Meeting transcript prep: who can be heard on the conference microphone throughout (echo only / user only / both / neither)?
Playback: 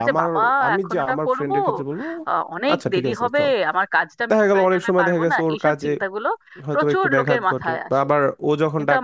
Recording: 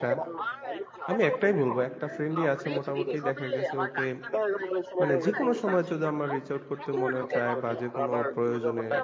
both